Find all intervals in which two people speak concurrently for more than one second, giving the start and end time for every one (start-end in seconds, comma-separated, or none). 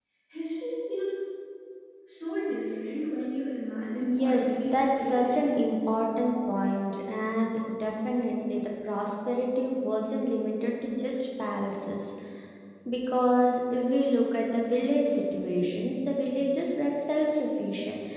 4.0-5.7